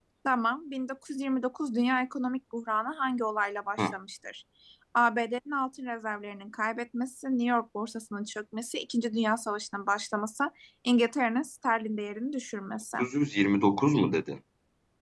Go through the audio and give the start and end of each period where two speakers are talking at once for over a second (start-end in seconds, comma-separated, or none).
none